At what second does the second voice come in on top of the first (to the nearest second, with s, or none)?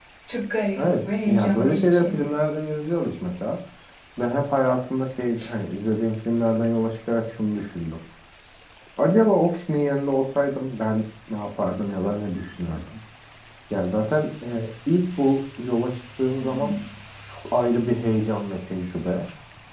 1 s